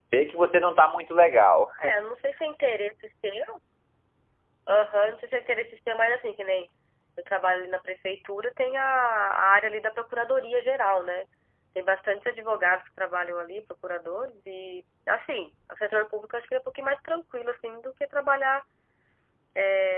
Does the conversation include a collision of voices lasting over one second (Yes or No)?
No